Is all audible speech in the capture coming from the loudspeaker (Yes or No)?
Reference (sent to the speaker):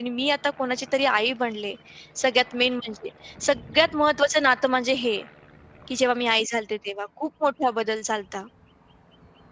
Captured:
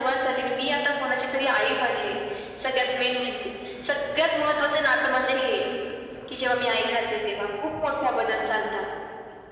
Yes